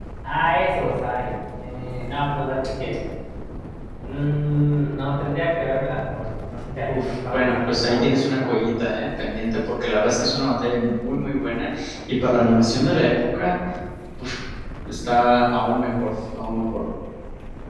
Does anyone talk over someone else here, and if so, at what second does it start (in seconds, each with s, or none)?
6.9 s